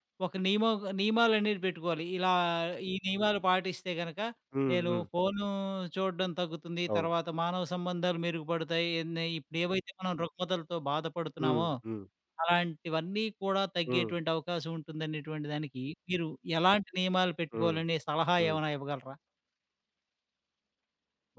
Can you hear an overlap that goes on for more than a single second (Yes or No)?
No